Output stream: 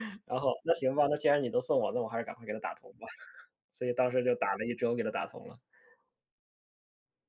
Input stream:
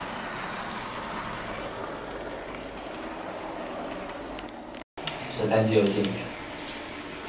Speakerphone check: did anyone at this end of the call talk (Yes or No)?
Yes